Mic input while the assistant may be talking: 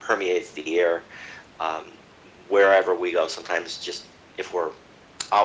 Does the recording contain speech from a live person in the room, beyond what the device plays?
No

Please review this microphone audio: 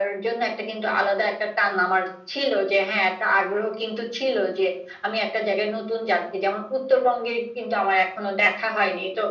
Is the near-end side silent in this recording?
Yes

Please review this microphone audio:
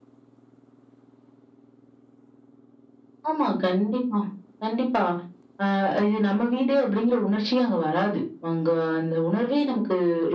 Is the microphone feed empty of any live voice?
Yes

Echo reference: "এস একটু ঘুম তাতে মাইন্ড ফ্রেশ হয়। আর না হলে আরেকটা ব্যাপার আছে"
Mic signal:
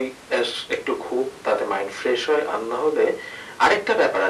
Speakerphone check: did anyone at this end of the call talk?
No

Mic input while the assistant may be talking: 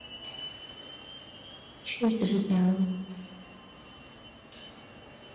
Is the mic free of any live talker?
No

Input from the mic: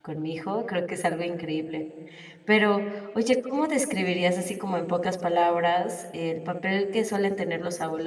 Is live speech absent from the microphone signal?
No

